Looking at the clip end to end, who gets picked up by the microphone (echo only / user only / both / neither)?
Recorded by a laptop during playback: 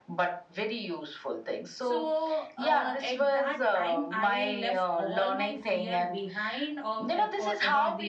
both